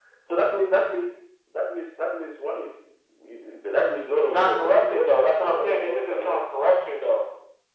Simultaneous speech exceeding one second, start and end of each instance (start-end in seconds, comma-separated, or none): 4.2-6.4